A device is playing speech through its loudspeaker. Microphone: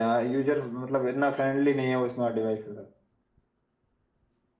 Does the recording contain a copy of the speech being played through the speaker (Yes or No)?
Yes